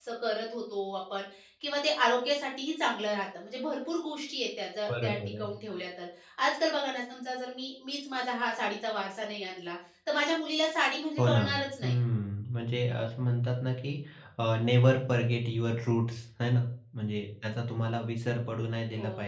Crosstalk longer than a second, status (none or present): none